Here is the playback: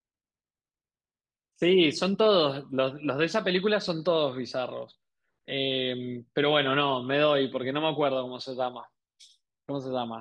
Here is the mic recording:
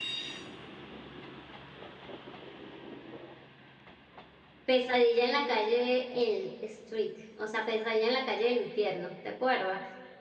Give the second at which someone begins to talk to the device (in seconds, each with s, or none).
4.6 s